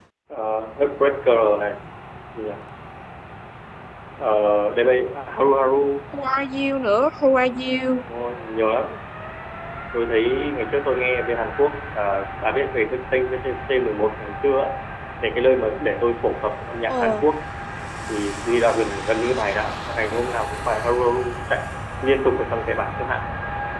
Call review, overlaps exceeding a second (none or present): none